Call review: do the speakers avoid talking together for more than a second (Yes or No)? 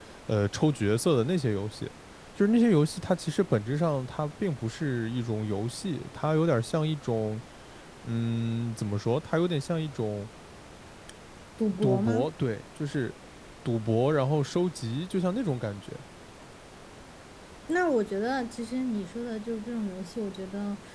Yes